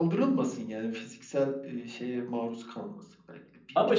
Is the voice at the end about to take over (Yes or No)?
No